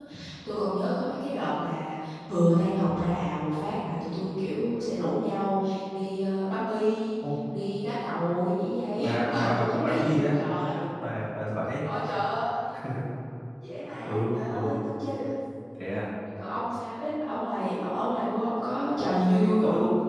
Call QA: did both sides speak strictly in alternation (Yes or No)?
No